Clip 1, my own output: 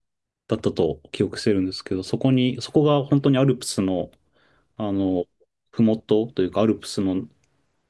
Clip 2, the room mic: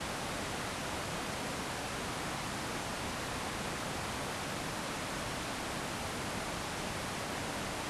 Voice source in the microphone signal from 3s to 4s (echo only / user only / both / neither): neither